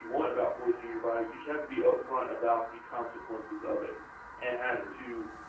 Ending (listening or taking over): listening